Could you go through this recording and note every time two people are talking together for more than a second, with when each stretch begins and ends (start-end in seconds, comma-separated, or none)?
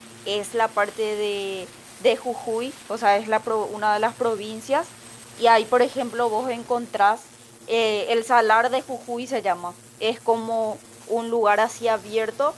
none